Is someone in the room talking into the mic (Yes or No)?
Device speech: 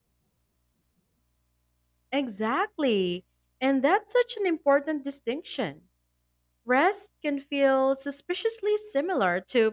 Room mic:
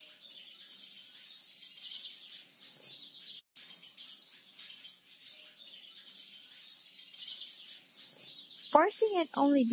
Yes